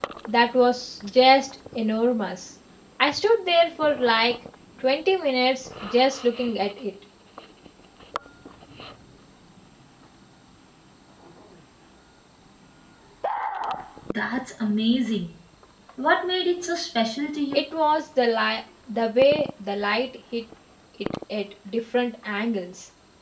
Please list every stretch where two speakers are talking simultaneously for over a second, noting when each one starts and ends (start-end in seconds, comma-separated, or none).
none